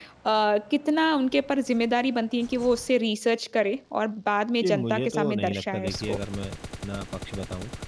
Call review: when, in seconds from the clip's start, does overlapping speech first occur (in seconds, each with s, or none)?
4.6 s